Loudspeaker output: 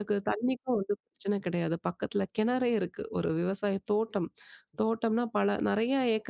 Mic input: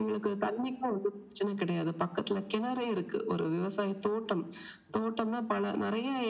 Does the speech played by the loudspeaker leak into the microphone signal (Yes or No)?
Yes